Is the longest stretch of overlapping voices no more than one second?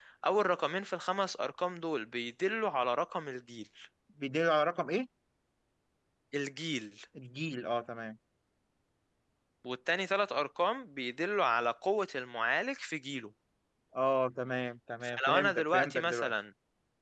No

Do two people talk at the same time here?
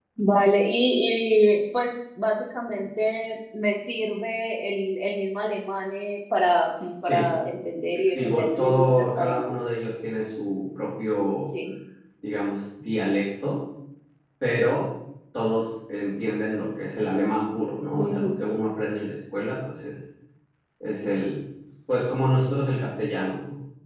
Yes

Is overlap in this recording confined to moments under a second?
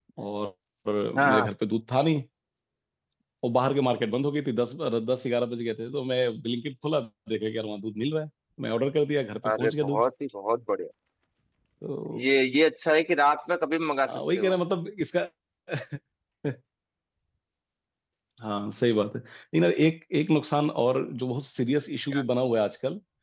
Yes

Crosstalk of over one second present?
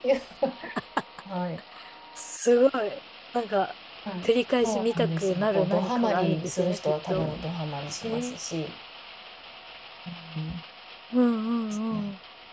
Yes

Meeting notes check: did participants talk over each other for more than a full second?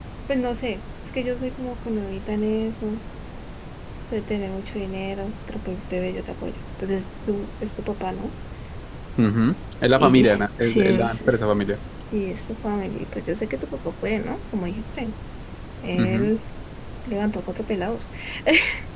Yes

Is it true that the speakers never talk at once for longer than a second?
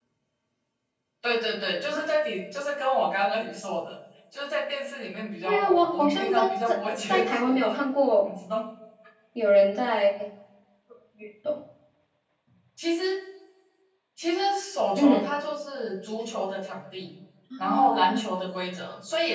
No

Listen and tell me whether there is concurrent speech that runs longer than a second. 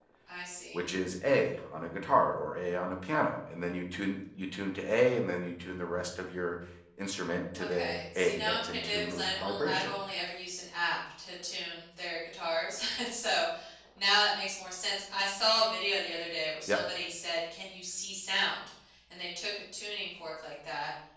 Yes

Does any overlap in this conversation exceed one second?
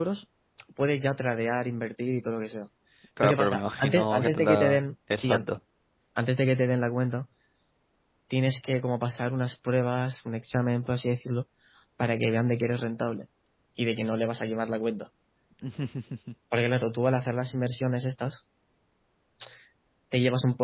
Yes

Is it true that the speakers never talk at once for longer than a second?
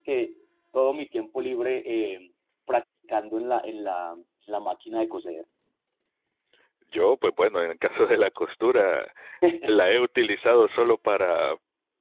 Yes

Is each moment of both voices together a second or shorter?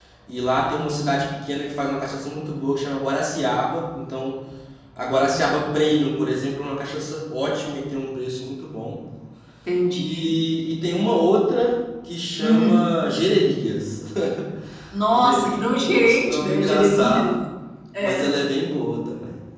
No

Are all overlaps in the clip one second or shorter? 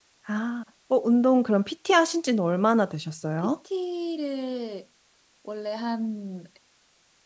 Yes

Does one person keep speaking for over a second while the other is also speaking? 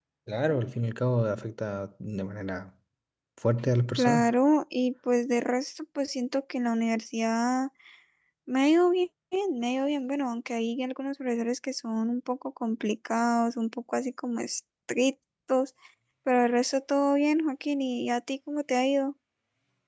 No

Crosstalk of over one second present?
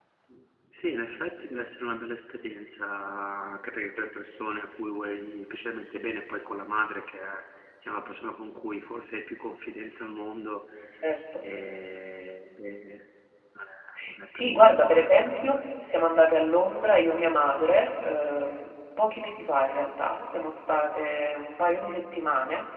Yes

